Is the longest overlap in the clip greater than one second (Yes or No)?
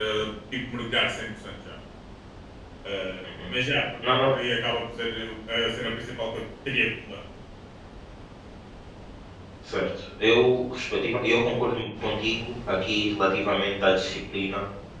No